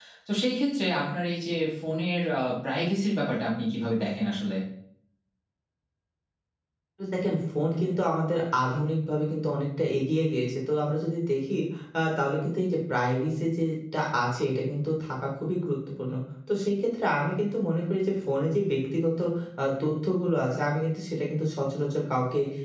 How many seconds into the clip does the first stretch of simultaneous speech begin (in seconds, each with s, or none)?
none